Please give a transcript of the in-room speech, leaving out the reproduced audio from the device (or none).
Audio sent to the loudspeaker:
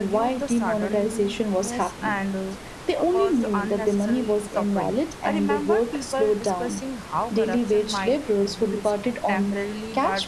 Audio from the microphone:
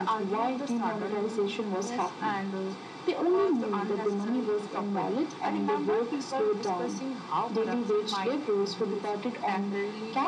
none